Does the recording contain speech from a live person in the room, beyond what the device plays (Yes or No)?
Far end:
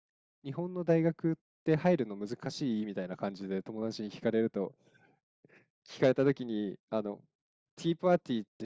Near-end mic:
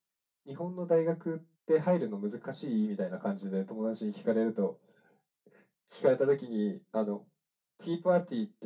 No